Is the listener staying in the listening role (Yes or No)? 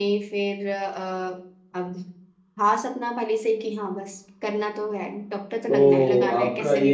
No